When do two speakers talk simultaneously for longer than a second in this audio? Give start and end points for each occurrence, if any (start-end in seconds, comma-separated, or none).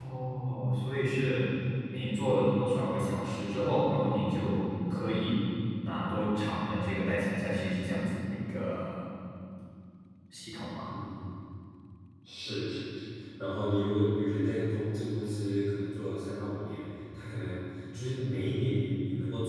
none